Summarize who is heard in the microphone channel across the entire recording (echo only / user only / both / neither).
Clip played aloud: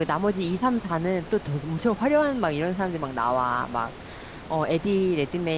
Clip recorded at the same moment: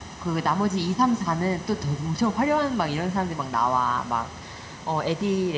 echo only